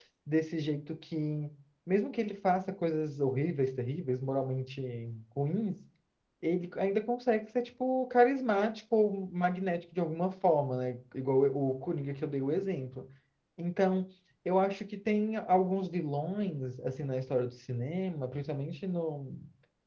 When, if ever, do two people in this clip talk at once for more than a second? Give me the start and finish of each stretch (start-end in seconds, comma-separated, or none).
none